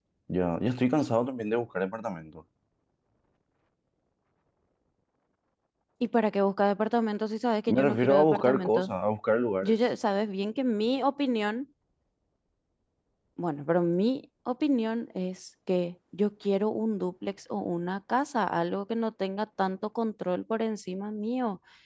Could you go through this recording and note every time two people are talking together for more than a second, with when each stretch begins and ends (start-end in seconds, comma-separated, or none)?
7.7-8.9